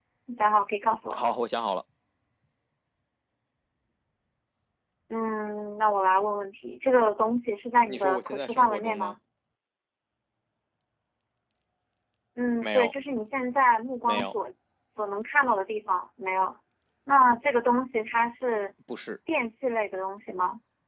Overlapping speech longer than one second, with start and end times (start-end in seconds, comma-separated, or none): 7.9-9.1